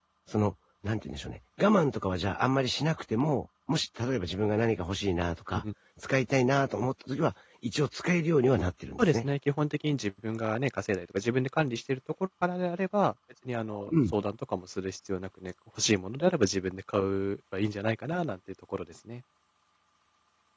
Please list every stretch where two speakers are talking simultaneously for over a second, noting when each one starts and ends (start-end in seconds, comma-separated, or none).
none